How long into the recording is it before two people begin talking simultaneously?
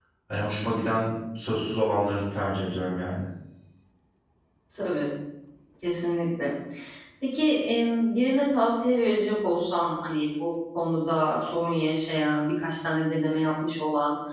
none

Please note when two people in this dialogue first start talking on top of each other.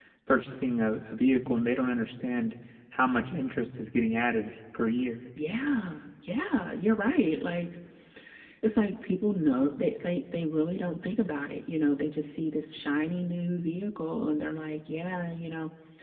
none

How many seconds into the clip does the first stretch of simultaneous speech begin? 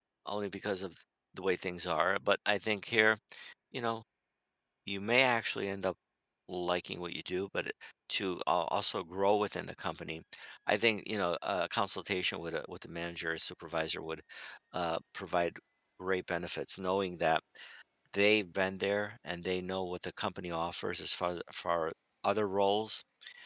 none

